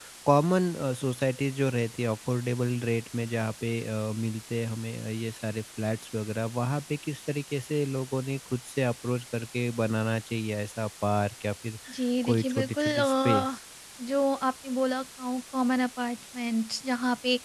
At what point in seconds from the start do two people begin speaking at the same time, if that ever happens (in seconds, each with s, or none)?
12.2 s